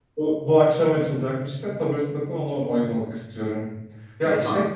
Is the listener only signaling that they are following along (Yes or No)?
Yes